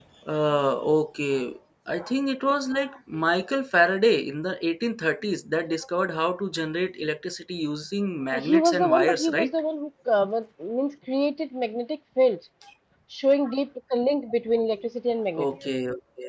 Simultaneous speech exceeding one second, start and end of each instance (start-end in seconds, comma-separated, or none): 8.3-9.5